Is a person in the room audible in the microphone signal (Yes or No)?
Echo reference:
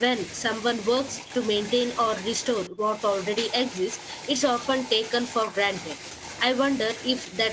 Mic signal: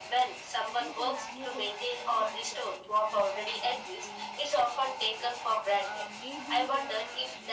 Yes